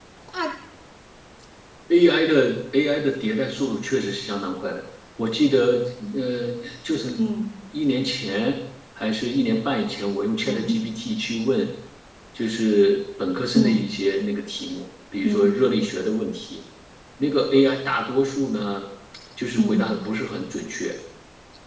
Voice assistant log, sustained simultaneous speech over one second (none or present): none